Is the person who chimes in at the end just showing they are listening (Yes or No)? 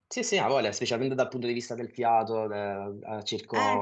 Yes